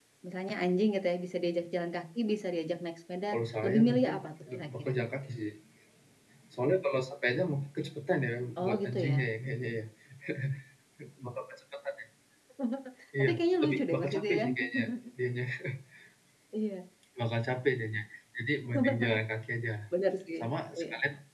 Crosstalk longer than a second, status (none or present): present